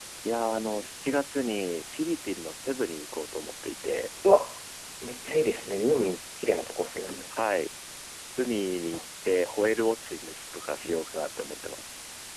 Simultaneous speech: No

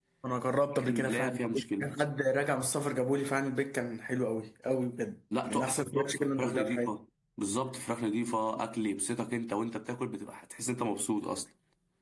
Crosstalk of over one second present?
Yes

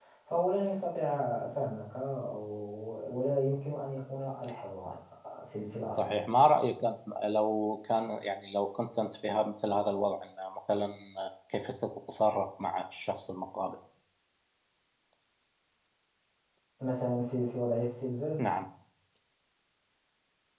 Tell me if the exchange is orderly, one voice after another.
Yes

